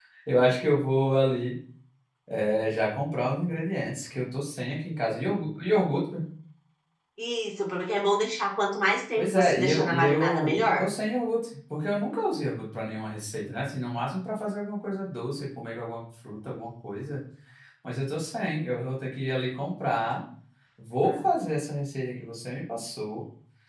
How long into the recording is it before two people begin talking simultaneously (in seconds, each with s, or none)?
9.2 s